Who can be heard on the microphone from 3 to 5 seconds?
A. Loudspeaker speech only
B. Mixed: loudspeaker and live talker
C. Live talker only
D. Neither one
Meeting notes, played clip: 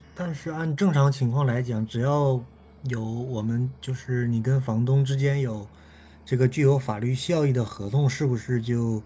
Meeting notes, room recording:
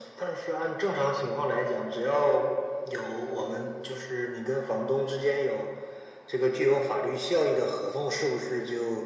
A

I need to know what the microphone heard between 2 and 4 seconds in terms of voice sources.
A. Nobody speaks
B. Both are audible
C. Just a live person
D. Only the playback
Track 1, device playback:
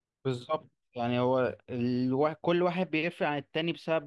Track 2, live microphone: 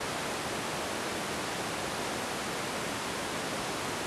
A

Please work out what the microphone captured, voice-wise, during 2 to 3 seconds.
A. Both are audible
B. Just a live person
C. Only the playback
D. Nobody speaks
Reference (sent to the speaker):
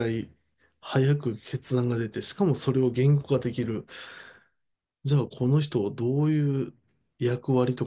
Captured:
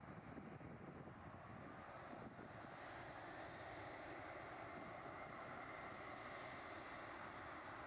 D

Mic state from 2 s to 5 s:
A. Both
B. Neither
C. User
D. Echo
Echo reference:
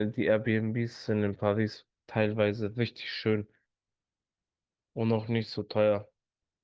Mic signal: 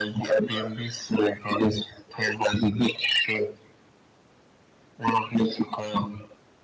D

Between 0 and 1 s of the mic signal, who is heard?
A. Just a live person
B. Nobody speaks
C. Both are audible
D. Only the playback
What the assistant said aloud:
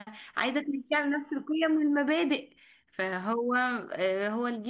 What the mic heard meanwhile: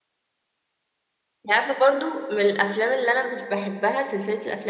B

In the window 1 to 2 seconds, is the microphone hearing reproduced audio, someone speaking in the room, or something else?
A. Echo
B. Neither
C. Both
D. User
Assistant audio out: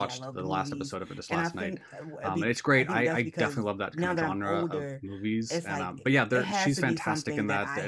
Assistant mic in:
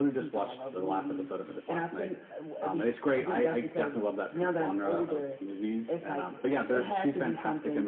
A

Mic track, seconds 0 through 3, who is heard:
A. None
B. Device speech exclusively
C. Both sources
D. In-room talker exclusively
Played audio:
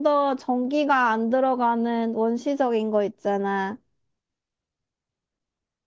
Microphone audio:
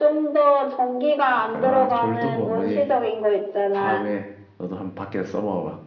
C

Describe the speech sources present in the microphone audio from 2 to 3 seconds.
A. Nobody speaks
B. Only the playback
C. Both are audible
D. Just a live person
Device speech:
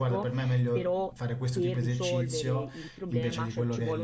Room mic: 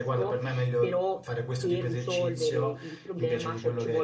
B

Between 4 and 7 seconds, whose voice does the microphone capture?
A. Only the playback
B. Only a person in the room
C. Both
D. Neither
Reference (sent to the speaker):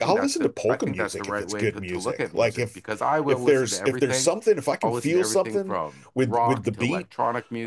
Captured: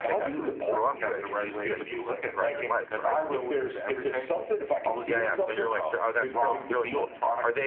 C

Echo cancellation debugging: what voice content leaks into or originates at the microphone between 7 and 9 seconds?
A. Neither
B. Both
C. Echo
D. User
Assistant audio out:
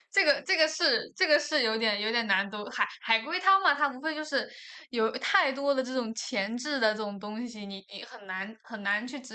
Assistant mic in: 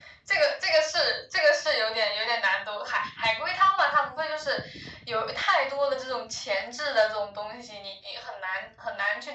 C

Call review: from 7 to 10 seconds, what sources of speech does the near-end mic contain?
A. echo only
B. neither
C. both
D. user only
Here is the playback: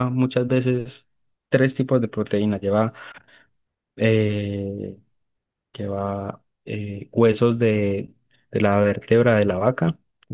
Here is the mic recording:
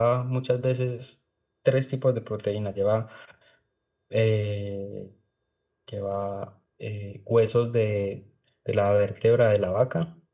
A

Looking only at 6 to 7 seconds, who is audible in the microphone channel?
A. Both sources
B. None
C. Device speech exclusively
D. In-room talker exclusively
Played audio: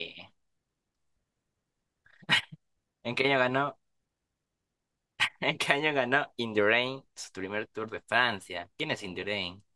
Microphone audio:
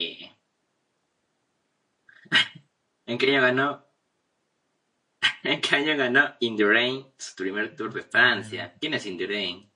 C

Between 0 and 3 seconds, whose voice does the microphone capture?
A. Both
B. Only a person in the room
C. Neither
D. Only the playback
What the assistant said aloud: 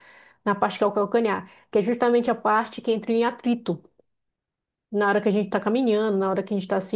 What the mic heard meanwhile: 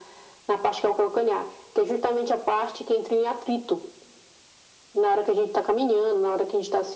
D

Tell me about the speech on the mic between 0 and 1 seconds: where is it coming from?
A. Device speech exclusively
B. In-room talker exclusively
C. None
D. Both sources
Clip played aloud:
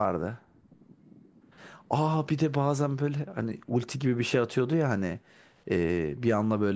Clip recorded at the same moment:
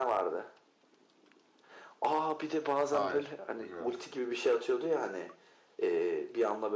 A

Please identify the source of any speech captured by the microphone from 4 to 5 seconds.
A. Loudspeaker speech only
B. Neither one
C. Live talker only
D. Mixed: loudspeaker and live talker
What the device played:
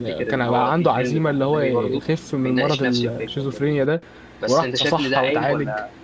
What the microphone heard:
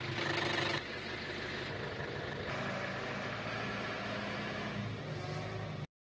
B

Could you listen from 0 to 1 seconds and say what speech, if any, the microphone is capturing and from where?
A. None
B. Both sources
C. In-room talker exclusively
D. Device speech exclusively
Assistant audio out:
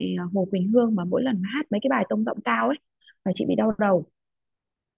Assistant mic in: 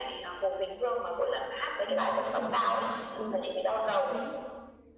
D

